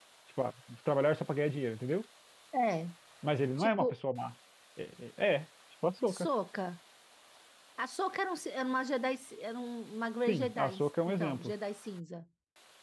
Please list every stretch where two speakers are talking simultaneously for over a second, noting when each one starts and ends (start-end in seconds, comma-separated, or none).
10.3-11.5